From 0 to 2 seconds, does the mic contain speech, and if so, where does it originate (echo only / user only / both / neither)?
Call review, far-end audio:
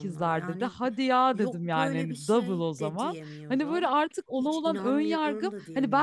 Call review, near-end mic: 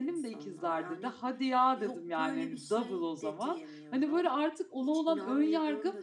echo only